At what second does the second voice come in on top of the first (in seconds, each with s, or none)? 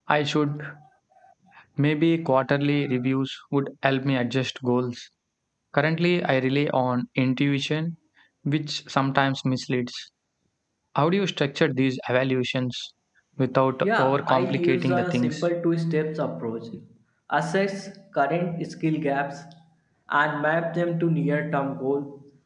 13.8 s